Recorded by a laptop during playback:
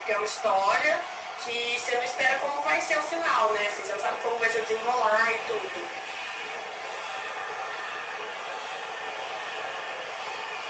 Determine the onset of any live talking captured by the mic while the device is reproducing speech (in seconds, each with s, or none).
none